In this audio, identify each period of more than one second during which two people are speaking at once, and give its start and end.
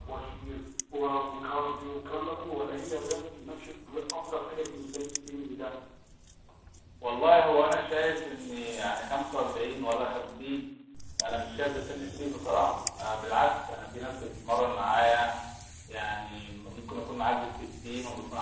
none

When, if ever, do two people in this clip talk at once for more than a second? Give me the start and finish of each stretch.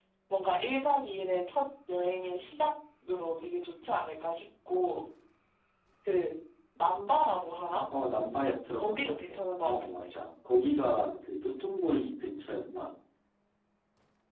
8.8-10.1

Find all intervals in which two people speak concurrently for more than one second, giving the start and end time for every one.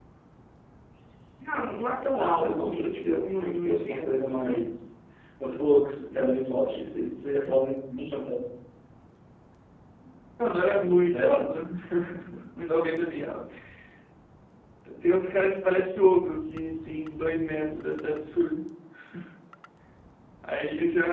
2.2-4.7

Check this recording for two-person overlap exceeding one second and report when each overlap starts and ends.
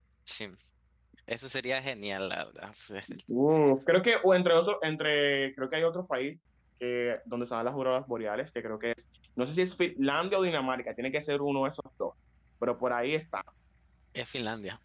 none

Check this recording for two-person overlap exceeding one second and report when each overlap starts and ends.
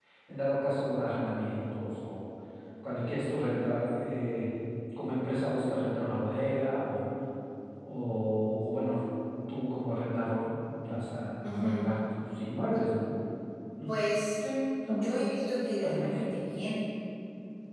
none

